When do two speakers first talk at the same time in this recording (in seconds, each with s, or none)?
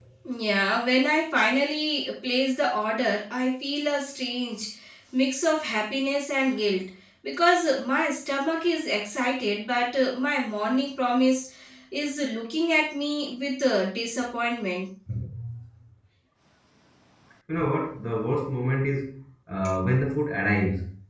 none